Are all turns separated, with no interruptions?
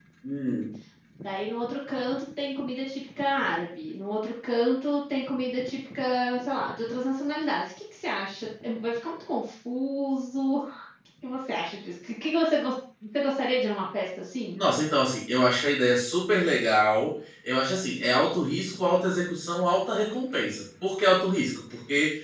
Yes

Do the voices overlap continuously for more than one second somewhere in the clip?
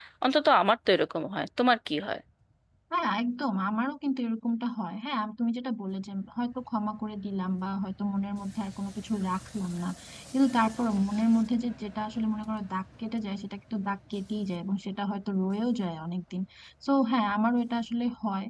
No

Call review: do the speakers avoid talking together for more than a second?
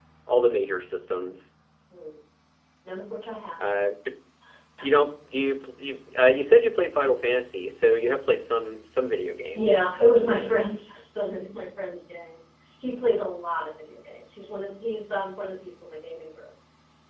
Yes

